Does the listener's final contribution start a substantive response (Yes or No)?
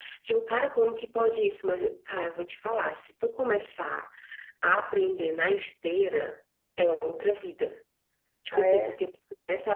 No